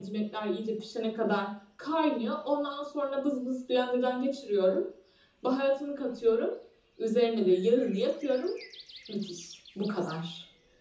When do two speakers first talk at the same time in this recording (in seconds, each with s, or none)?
none